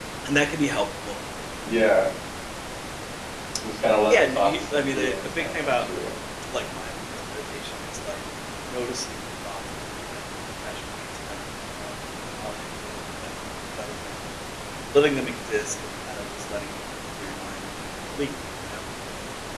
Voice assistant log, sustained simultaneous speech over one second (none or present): present